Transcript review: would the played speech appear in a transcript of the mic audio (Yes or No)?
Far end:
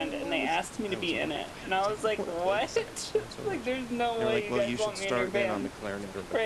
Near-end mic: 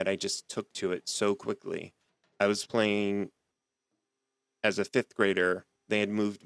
No